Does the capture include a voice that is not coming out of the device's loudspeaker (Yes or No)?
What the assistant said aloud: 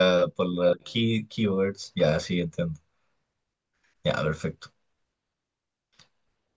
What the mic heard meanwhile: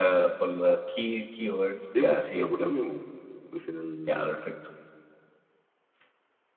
Yes